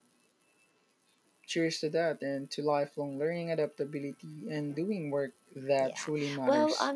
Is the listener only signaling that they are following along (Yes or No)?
No